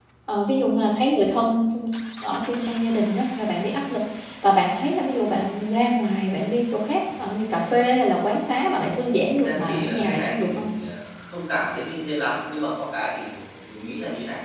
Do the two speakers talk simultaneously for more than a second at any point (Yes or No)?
Yes